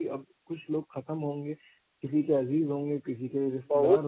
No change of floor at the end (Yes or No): No